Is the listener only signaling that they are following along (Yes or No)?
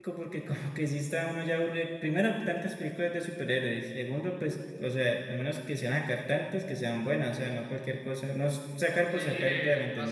No